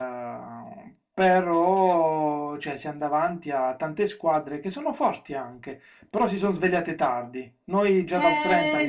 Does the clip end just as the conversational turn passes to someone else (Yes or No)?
Yes